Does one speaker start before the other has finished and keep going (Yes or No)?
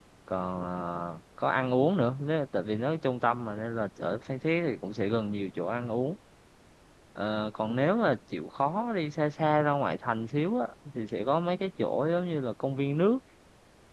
No